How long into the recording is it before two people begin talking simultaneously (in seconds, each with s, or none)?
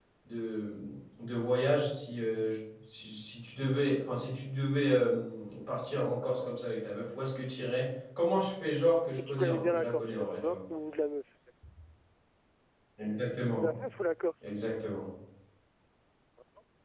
9.2 s